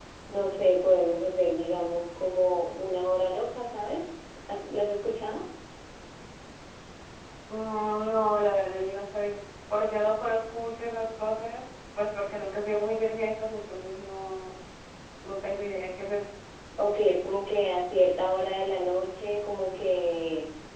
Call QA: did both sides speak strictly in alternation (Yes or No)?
Yes